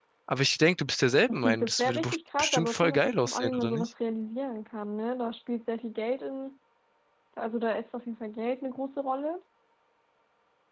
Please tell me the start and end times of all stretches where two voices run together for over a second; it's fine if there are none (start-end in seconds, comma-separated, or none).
1.3-3.9